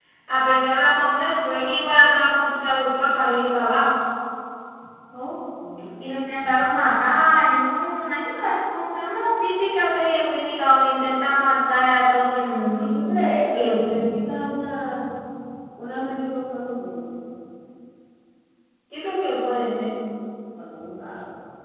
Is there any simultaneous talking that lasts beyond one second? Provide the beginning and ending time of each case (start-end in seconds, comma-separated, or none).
none